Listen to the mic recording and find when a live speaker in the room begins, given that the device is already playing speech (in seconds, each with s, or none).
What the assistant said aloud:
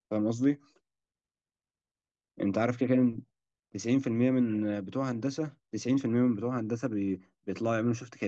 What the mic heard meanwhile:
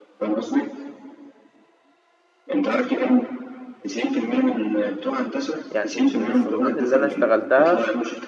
5.7 s